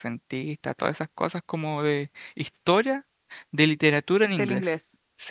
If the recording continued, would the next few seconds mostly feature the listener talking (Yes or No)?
Yes